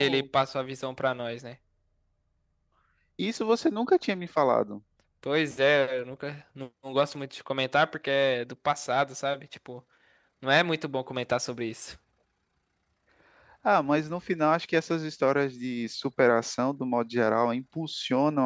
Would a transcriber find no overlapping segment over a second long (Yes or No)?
Yes